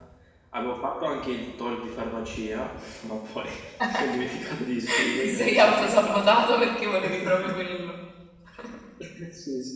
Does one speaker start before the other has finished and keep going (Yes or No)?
Yes